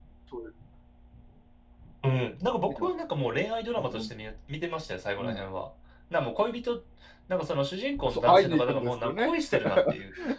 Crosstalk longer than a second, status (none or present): present